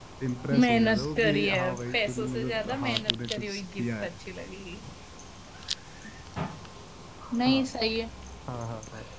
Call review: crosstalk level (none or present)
present